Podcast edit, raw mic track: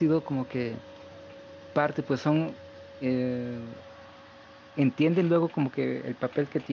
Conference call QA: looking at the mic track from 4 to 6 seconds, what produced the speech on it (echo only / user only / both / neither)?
user only